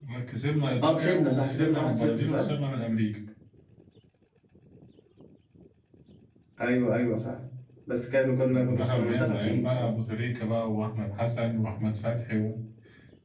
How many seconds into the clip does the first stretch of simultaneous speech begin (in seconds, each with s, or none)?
0.8 s